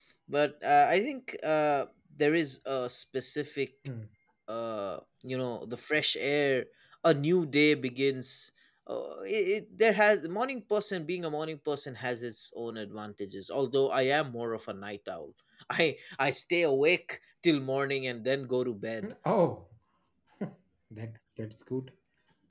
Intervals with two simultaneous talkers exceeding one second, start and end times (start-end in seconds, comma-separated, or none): none